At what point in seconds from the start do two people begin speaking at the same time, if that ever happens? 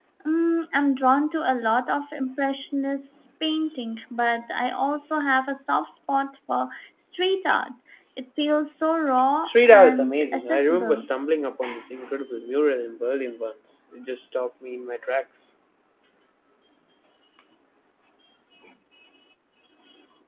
9.4 s

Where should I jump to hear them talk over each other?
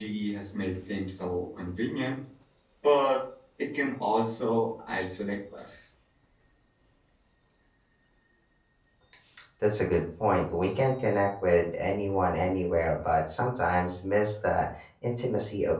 none

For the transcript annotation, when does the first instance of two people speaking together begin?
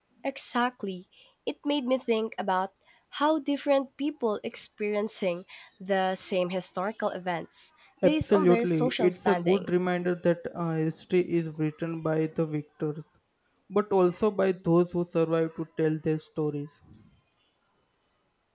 8.0 s

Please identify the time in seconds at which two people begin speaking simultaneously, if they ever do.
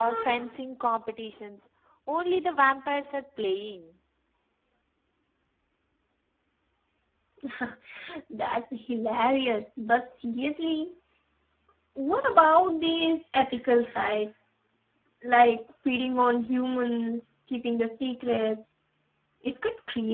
none

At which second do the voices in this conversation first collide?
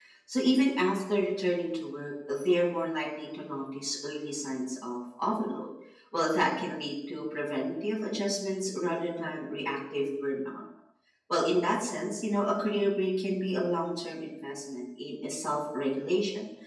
none

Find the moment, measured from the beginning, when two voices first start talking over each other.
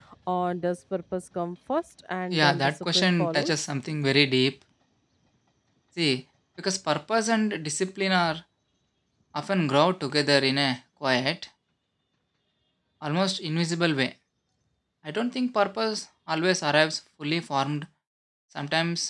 2.3 s

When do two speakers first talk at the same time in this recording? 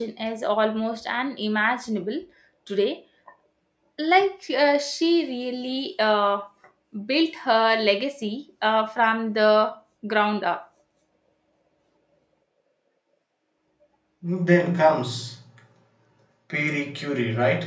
none

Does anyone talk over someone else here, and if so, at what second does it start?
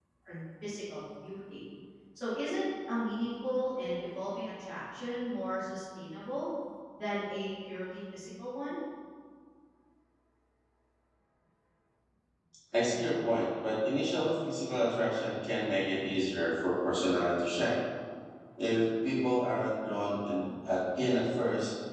none

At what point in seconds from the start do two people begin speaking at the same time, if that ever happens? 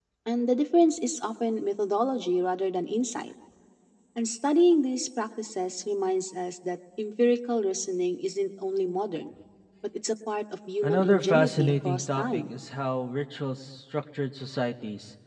10.8 s

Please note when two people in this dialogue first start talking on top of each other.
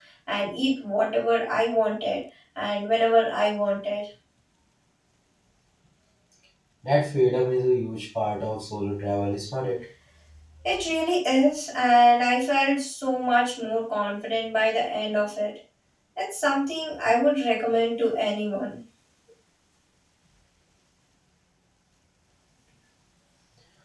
none

